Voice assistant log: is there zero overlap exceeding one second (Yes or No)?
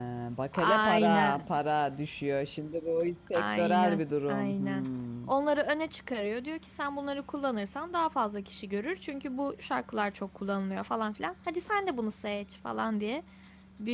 No